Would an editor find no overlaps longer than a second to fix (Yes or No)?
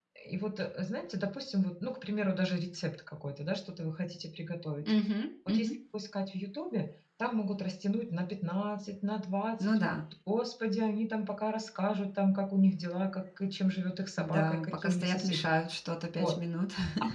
No